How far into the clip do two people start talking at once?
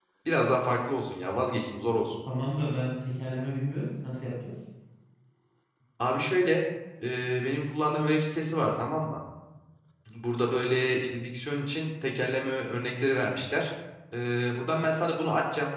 none

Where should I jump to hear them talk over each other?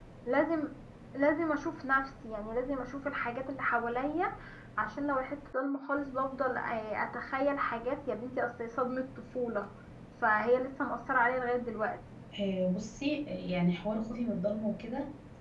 none

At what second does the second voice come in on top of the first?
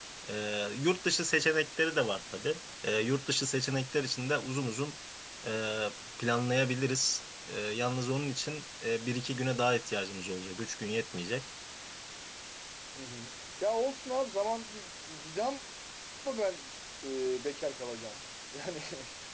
none

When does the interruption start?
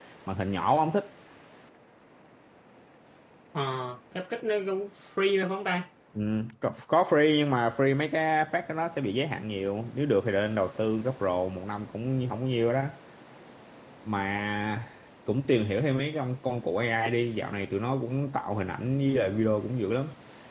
none

